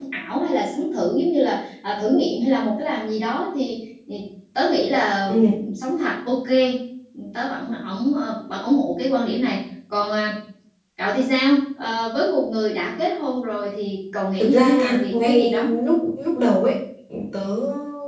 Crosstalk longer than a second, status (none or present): present